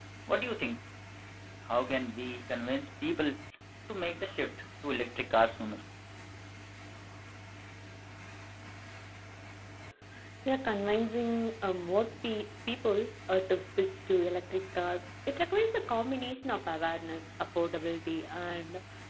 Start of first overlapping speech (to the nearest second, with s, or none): none